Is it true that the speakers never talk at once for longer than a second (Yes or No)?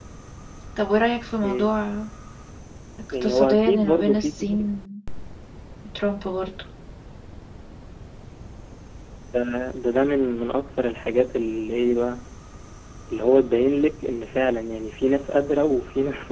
No